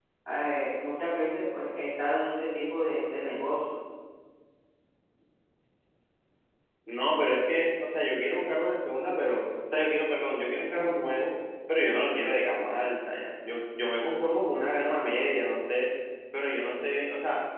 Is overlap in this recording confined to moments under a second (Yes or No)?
Yes